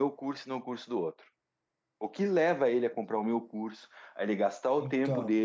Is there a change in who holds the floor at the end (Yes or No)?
No